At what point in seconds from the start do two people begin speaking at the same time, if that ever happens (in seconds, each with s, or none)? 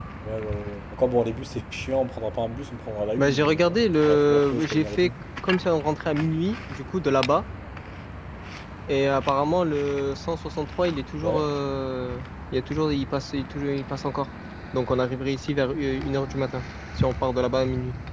3.2 s